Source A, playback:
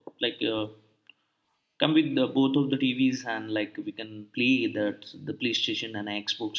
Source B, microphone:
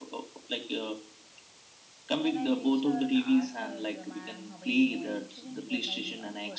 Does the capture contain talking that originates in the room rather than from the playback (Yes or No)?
Yes